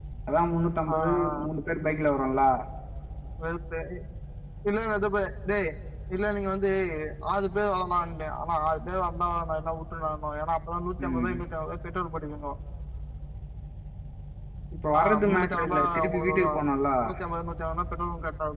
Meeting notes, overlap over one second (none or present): present